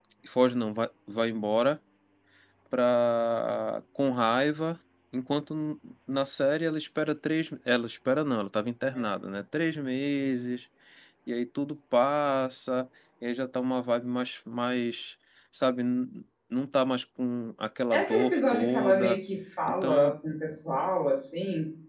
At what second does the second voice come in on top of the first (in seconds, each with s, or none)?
17.9 s